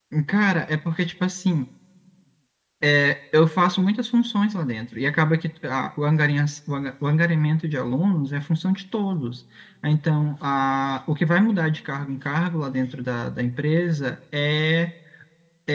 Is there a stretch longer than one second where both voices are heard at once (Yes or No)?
No